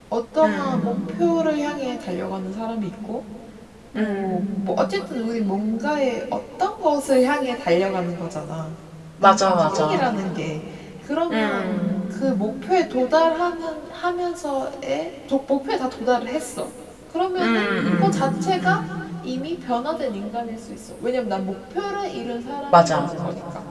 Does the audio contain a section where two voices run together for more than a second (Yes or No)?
Yes